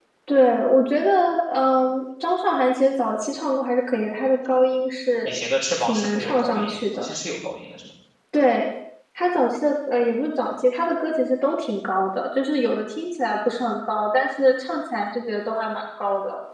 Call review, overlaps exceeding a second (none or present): present